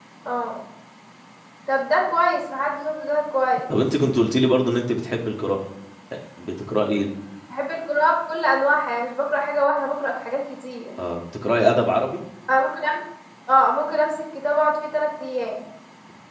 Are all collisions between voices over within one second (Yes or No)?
Yes